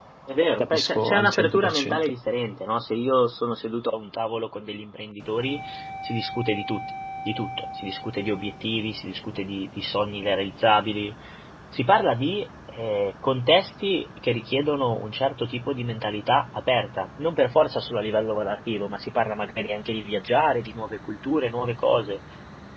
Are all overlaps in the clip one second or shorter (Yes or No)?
No